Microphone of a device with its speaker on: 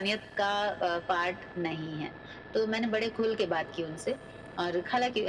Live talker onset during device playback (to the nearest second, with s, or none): none